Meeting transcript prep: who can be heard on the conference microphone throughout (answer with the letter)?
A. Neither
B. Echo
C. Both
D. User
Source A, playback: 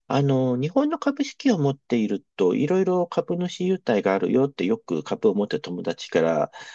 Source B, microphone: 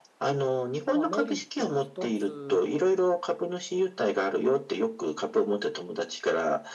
C